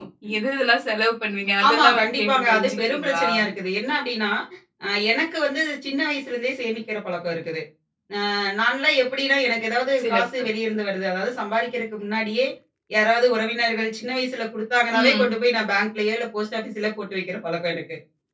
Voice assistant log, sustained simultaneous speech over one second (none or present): present